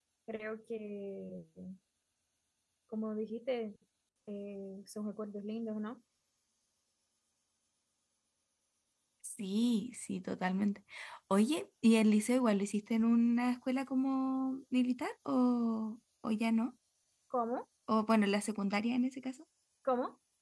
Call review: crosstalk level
none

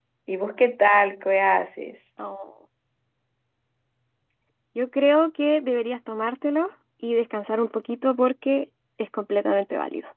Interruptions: none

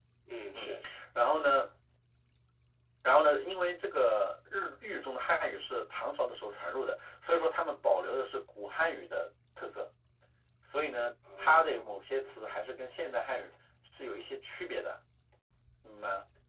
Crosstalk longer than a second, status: present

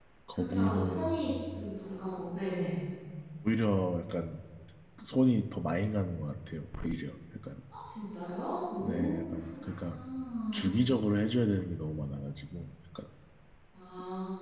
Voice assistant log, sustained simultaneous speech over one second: present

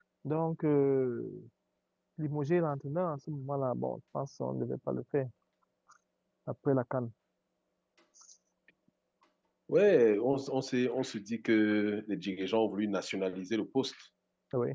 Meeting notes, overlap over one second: none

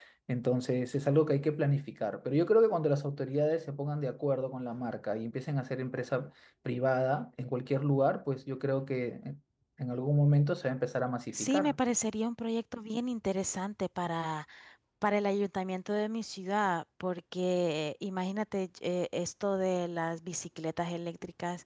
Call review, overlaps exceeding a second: none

